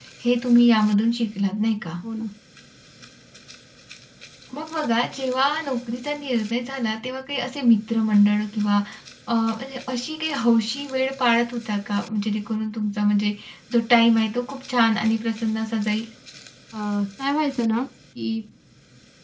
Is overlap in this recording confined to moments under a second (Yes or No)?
Yes